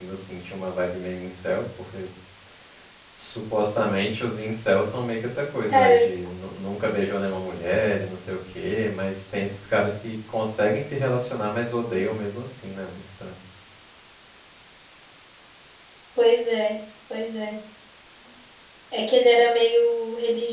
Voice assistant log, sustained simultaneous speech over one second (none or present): none